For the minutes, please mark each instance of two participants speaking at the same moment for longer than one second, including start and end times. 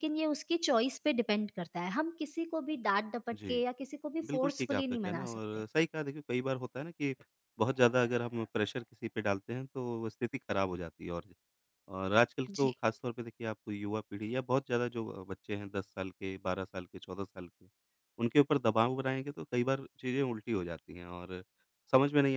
4.2-5.6

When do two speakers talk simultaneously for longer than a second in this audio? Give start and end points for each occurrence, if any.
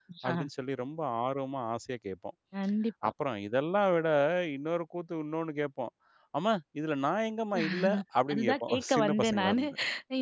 8.3-9.6

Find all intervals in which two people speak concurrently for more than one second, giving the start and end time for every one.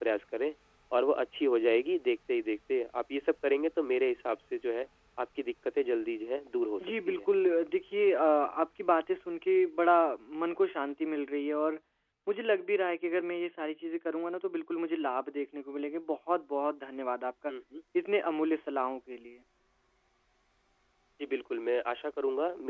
none

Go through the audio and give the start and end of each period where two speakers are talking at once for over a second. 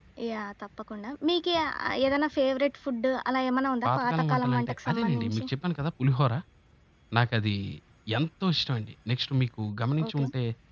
3.9-5.4

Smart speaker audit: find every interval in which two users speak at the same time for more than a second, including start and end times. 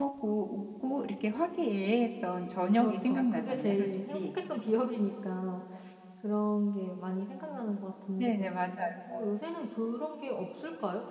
2.7-4.3

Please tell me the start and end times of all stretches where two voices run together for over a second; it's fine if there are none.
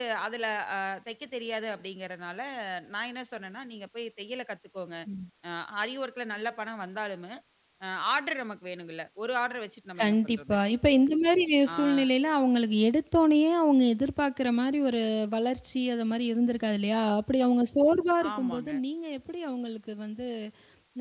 none

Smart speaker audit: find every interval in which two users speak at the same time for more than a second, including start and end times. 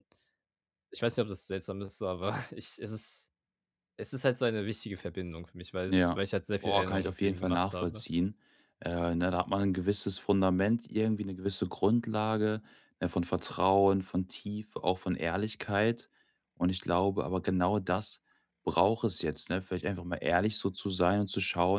6.6-8.0

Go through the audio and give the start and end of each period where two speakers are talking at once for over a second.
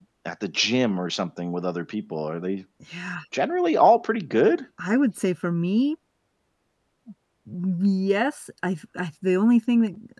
none

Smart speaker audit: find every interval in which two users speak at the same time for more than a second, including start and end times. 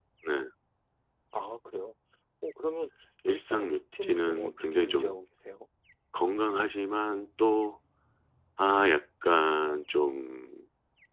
3.2-5.2

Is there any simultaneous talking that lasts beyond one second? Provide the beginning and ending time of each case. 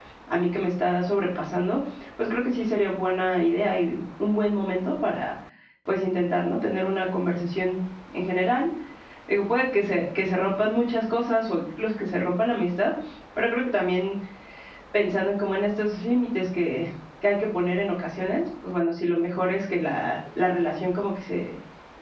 none

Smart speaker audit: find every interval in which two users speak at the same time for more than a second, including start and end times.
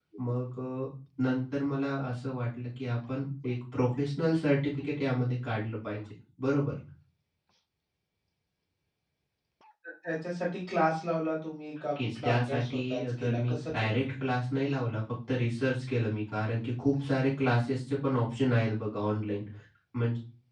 12.0-14.3

